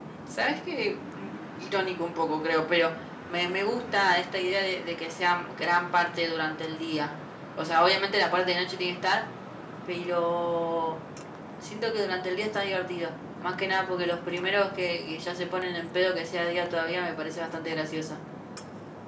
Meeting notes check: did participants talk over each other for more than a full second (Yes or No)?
No